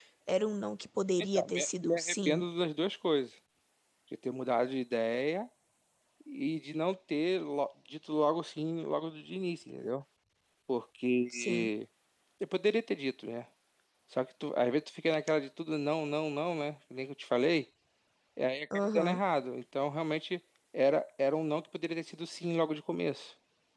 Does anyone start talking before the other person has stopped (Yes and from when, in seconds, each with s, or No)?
Yes, from 1.2 s